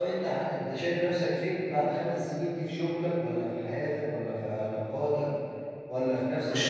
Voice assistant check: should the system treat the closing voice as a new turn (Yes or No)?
Yes